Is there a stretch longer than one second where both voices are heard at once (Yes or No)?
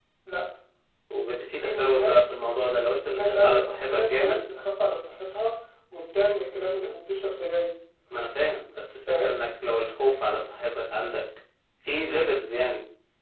Yes